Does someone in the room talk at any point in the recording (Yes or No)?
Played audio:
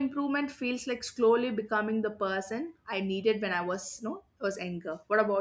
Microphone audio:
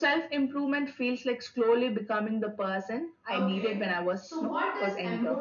Yes